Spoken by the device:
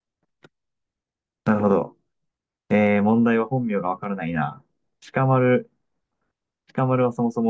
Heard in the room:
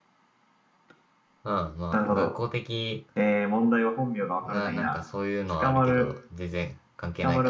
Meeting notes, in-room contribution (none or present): present